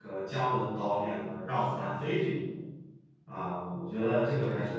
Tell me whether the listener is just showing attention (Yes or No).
No